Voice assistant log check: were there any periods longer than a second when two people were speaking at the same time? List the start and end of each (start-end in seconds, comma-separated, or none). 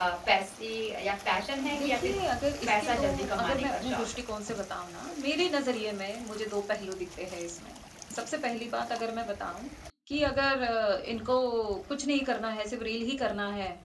2.6-4.0